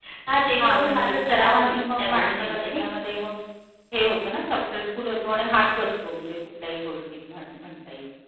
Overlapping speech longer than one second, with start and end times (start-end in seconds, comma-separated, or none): 0.6-2.8